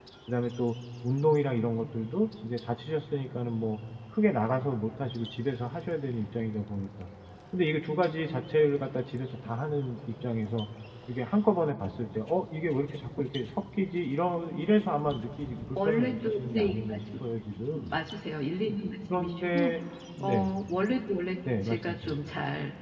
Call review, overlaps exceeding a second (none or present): present